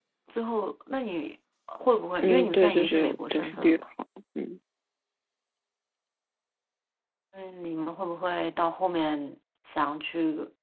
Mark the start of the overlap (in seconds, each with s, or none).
2.2 s